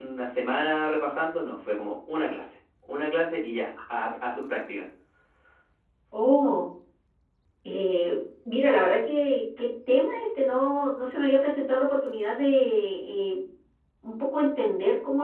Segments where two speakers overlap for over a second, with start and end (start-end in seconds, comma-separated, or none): none